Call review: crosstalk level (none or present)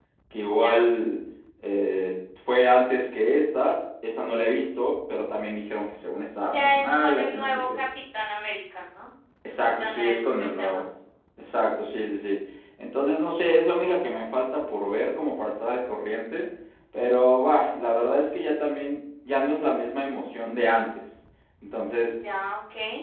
present